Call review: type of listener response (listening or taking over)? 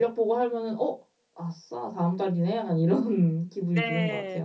taking over